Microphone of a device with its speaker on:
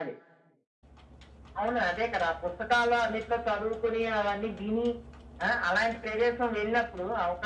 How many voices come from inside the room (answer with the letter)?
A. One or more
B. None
B